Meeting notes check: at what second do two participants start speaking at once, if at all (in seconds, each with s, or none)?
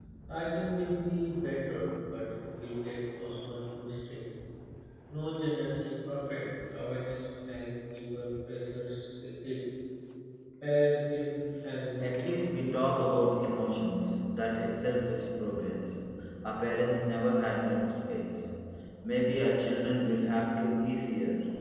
12.0 s